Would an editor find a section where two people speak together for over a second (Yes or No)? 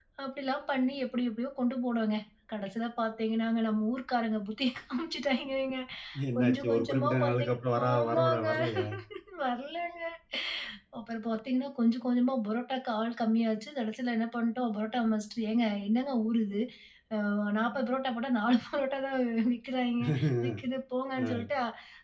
Yes